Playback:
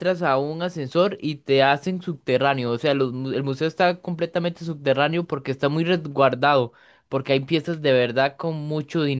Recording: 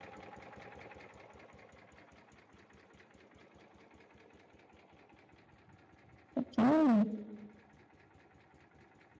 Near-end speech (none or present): present